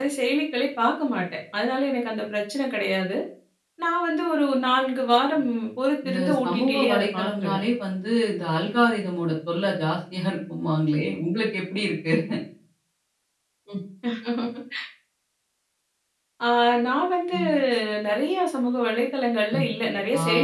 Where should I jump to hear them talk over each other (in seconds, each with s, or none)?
6.0 s